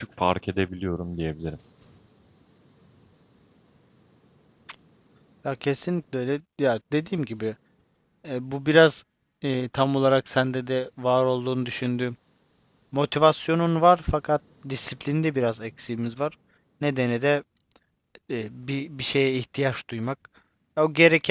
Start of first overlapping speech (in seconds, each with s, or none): none